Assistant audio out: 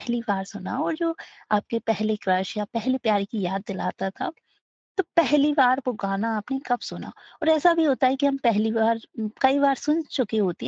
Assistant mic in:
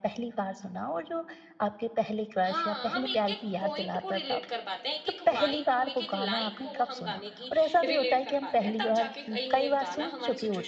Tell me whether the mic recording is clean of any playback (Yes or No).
No